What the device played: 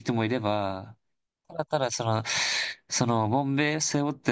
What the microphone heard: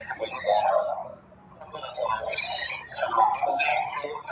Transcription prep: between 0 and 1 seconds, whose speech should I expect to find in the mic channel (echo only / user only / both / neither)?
echo only